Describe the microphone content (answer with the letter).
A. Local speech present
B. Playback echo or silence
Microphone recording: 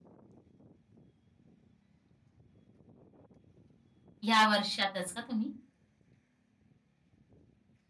A